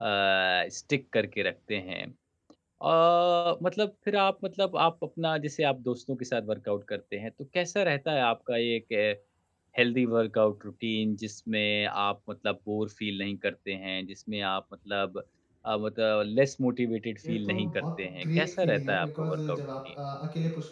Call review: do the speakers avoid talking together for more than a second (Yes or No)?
No